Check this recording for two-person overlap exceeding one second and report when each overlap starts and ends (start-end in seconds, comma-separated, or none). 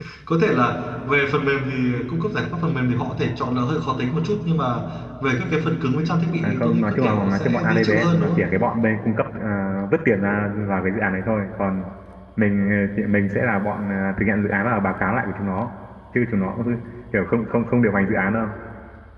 6.4-8.4